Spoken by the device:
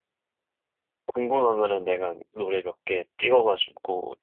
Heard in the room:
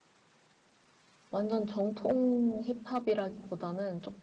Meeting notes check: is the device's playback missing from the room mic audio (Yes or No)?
Yes